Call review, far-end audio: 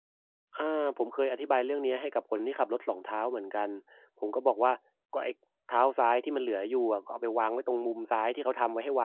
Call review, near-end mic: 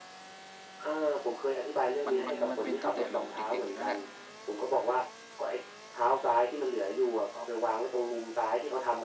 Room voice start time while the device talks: 2.1 s

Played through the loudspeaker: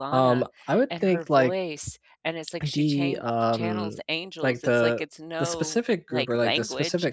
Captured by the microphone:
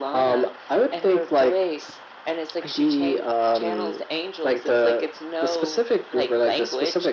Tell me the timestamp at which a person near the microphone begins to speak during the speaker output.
none

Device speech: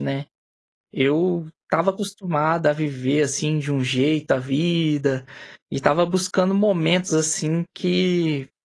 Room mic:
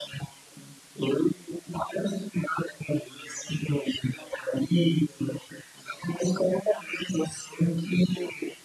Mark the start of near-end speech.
none

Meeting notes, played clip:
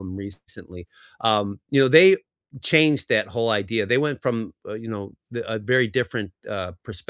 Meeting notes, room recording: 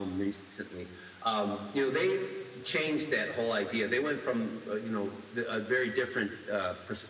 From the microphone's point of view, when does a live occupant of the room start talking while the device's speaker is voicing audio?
none

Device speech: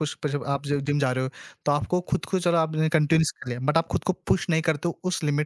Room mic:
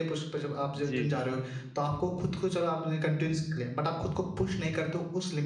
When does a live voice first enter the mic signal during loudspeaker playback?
0.8 s

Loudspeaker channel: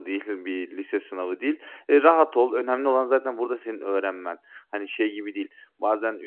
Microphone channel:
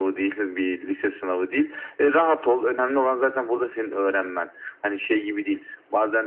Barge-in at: none

